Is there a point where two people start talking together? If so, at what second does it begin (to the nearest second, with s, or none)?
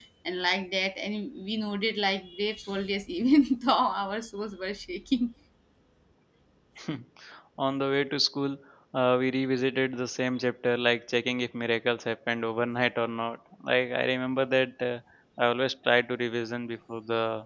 none